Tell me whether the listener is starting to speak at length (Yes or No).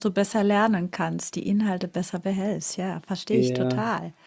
Yes